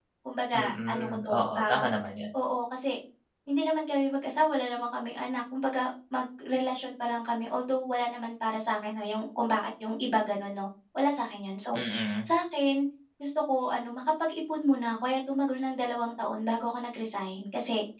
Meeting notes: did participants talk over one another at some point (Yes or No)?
Yes